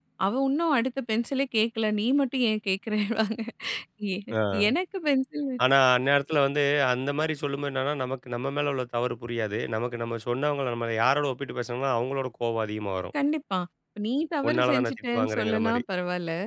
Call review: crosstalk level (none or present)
present